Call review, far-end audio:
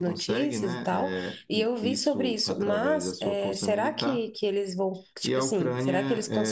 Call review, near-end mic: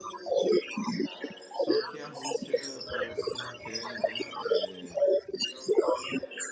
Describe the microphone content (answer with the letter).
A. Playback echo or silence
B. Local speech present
B